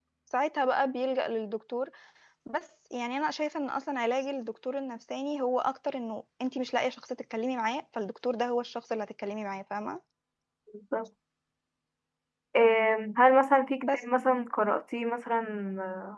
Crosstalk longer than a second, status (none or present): none